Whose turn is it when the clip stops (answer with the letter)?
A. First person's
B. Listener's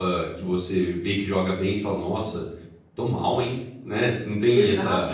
B